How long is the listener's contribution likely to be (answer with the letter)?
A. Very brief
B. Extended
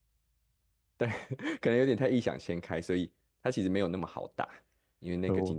A